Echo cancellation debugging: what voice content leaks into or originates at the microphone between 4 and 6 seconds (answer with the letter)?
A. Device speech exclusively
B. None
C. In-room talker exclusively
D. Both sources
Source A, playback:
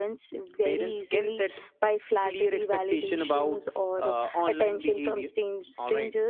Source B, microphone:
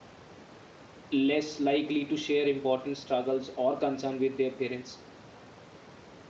C